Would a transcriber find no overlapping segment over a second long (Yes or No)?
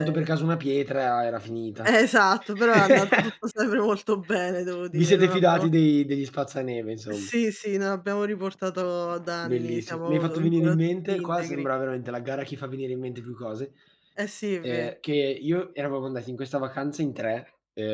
No